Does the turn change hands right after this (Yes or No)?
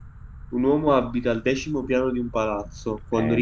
Yes